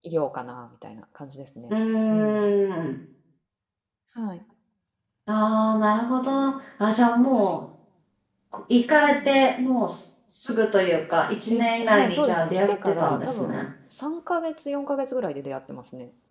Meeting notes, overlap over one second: present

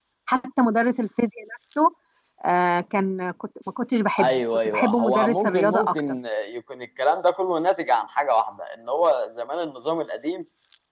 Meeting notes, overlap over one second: present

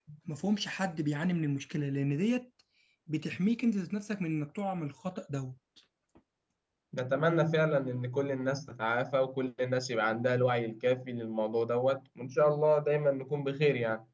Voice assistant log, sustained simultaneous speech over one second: none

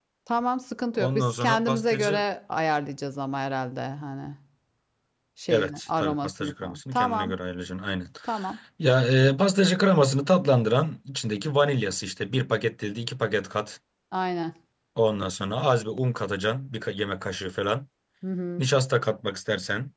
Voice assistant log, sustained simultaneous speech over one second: present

